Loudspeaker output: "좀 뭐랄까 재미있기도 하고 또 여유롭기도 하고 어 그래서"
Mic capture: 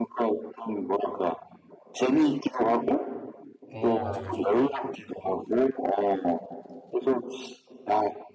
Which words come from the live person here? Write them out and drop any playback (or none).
어 맞아 맞아